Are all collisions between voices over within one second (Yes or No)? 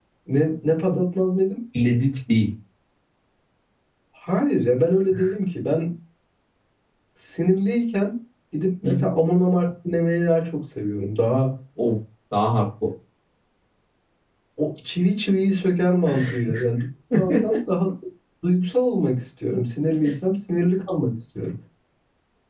Yes